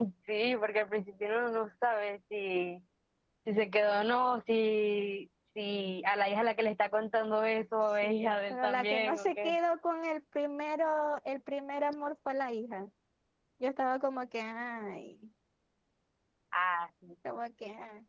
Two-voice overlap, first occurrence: 8 s

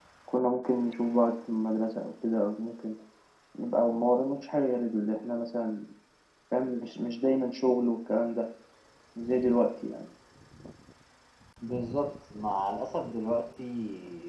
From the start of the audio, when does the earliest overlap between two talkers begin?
none

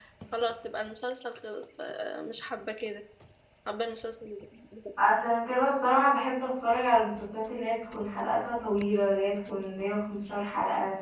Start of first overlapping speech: none

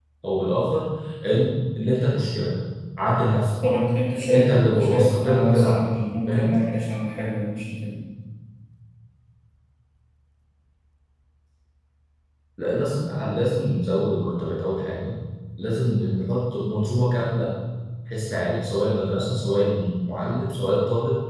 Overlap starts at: 4 s

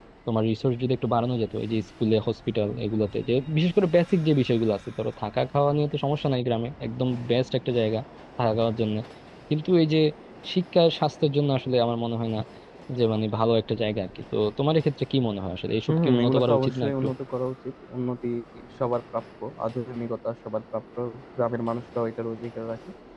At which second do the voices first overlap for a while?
16 s

